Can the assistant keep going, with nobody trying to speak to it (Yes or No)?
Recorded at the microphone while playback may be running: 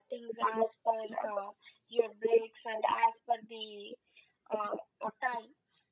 Yes